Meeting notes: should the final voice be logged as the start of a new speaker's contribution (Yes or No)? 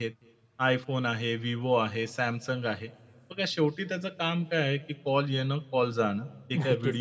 No